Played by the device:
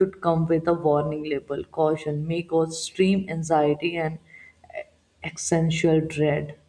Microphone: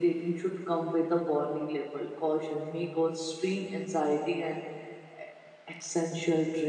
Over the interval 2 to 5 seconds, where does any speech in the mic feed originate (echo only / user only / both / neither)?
echo only